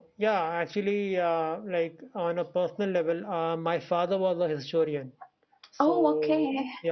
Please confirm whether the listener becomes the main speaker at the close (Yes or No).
No